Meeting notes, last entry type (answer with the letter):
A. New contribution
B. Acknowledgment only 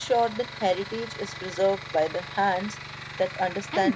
A